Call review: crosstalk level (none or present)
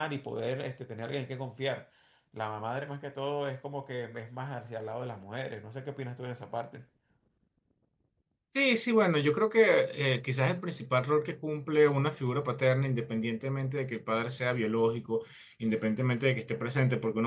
none